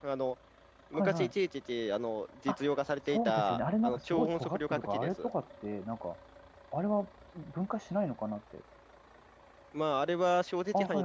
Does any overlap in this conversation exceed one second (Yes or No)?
Yes